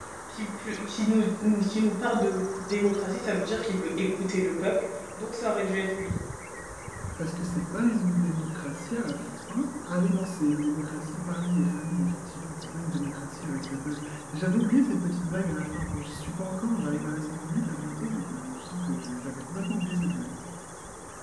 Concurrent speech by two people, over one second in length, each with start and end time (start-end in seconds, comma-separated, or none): none